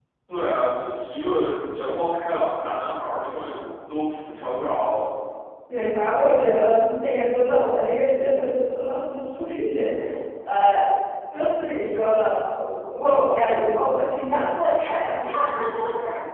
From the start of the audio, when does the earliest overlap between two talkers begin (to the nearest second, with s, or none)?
none